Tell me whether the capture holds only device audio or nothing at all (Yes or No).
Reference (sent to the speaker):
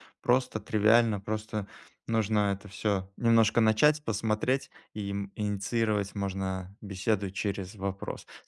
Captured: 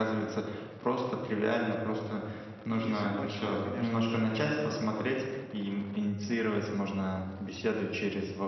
No